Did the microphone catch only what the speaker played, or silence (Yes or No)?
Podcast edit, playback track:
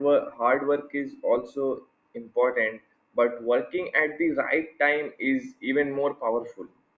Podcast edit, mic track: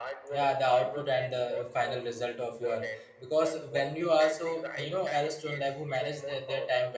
No